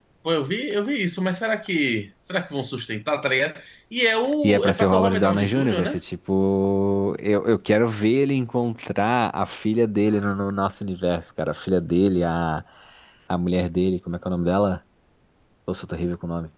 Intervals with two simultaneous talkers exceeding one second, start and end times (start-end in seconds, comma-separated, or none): 4.4-6.0